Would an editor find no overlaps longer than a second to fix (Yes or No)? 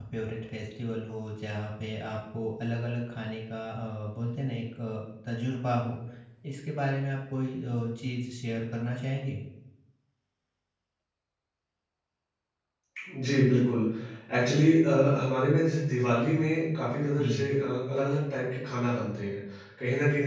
Yes